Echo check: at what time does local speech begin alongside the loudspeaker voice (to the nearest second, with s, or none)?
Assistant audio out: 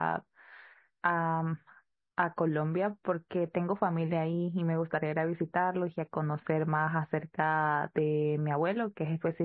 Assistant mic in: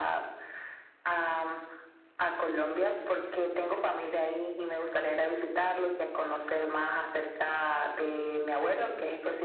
none